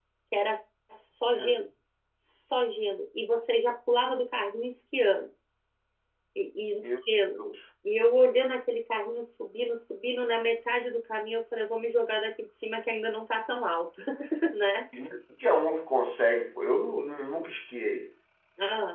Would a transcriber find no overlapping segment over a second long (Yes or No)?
Yes